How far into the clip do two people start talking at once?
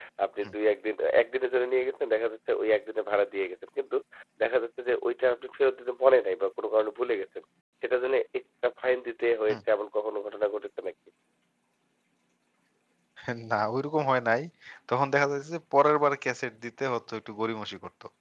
none

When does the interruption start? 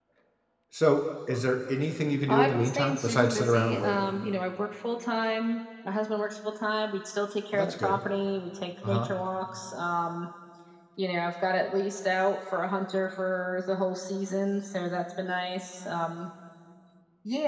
2.3 s

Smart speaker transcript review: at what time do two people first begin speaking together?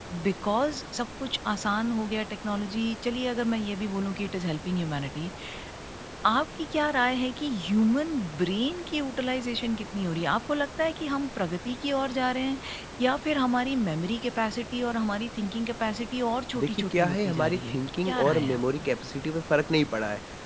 16.5 s

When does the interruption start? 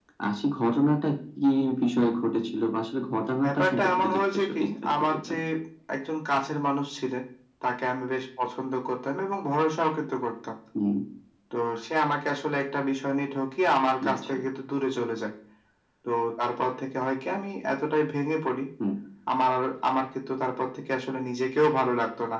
3.4 s

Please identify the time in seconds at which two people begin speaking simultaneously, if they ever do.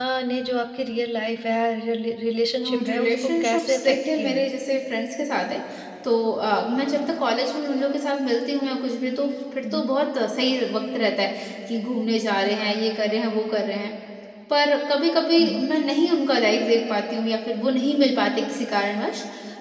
2.9 s

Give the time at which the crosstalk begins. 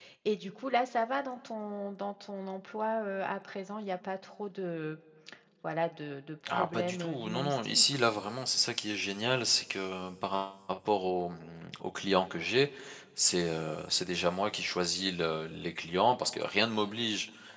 6.5 s

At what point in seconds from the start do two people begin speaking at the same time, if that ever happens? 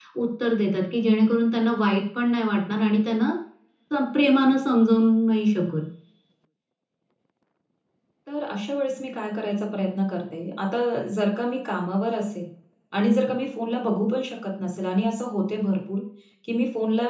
none

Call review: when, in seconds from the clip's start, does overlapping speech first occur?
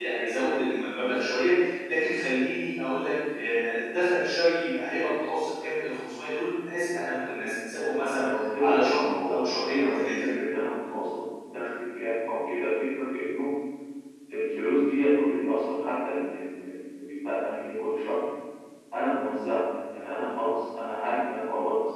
7.9 s

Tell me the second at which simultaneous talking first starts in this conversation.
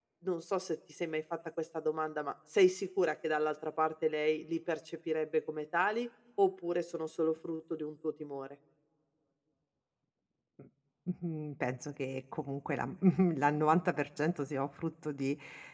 none

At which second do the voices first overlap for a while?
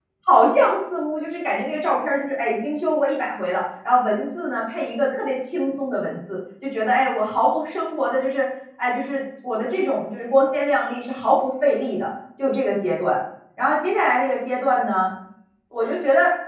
none

